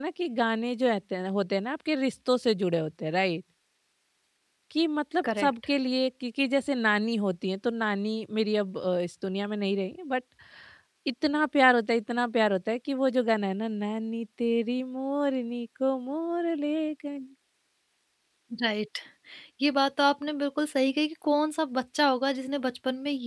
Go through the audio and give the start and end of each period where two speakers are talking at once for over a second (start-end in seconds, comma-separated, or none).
none